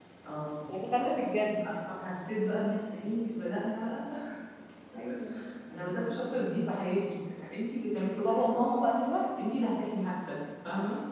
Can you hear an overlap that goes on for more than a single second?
No

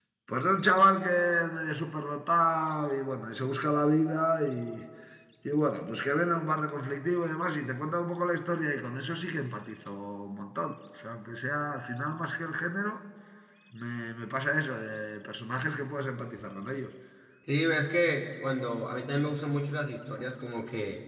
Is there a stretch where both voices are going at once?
No

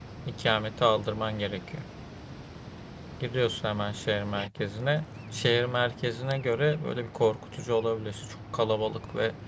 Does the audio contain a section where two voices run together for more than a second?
No

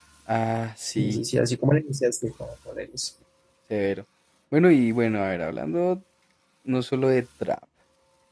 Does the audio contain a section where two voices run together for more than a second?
No

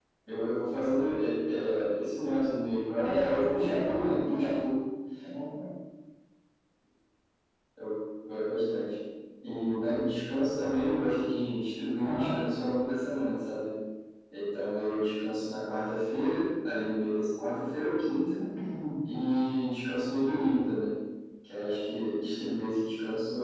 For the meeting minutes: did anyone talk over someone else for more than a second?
Yes, from 3.0 s

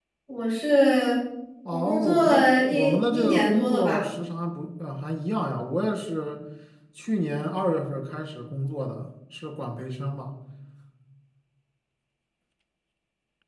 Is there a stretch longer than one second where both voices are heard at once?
Yes, from 1.7 s

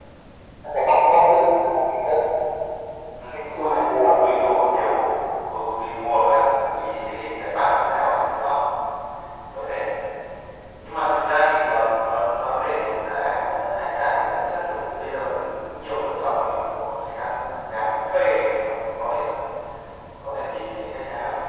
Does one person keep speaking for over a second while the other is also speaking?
Yes, from 3.3 s

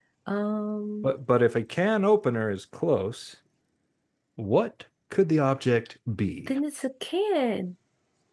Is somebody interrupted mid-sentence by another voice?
No

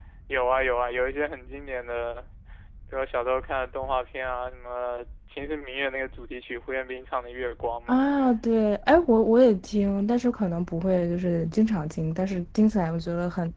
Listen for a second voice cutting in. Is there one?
No

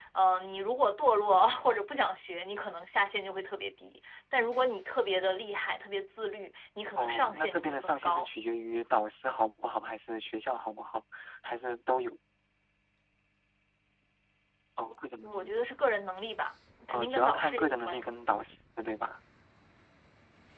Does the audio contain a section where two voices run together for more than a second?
Yes, from 7.0 s

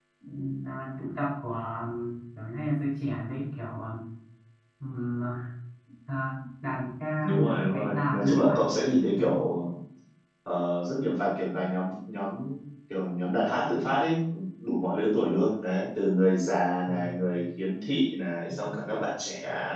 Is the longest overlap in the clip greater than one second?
Yes, from 7.4 s

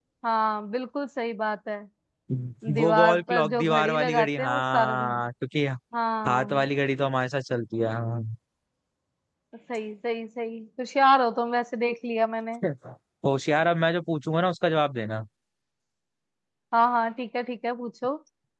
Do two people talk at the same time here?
Yes, from 2.8 s

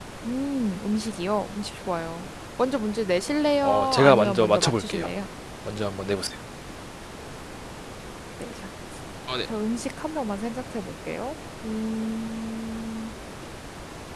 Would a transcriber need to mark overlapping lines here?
Yes, from 3.6 s

